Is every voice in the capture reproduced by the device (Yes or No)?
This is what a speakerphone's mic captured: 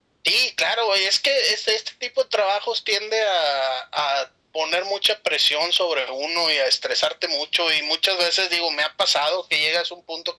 Yes